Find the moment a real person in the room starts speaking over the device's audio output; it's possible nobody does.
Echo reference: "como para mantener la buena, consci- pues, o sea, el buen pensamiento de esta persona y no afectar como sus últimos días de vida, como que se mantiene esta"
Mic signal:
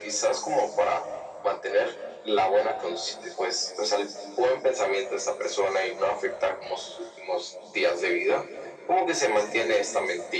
none

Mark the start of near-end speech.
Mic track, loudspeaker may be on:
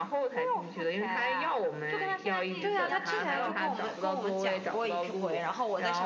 3 s

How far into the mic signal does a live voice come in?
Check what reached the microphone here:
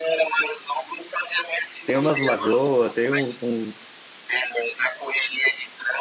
2 s

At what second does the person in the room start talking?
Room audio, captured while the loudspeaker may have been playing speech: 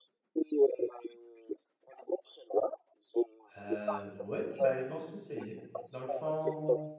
4 s

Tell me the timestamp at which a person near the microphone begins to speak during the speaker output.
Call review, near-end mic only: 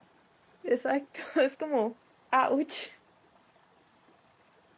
1 s

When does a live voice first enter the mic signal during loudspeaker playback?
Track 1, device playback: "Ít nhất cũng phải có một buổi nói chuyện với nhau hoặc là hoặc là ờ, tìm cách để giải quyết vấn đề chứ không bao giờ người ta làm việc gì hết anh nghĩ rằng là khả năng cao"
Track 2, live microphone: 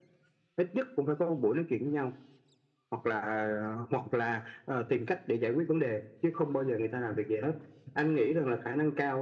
none

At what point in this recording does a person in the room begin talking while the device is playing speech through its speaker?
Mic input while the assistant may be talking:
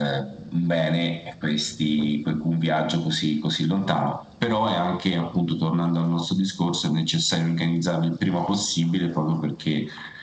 none

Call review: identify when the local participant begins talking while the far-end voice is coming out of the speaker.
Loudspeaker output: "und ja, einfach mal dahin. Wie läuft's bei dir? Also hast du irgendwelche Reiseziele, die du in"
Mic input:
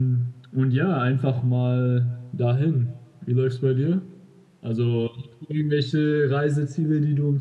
none

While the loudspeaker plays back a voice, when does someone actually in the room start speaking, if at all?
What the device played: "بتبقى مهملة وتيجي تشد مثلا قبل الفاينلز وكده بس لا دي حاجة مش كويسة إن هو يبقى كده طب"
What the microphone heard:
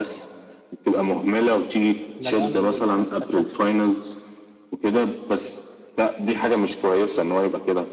2 s

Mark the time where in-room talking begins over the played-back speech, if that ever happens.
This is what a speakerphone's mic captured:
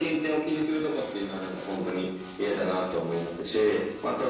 none

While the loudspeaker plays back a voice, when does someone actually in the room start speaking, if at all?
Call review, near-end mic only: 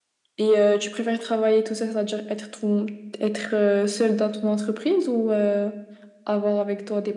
none

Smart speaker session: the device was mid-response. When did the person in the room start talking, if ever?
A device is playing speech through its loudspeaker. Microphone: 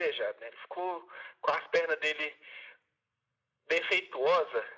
none

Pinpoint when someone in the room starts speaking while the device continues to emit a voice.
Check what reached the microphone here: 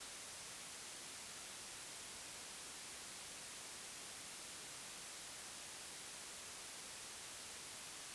none

